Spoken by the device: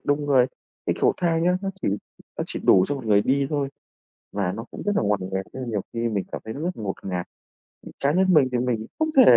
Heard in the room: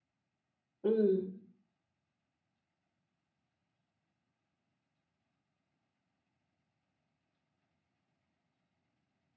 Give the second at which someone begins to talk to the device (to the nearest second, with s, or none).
1 s